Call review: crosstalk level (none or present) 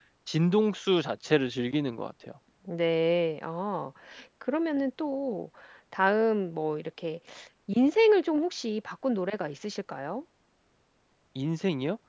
none